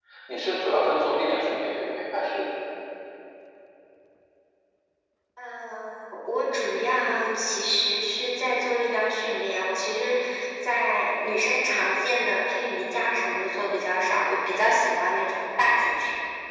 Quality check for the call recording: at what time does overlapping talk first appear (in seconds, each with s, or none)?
none